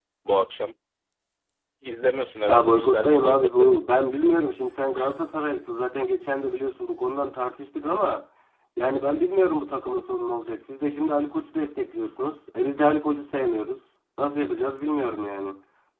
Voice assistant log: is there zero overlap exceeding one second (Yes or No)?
No